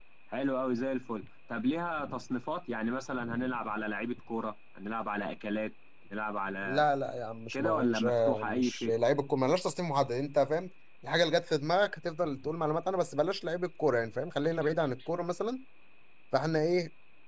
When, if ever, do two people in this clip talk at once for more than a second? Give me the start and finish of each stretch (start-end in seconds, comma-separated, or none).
7.5-8.9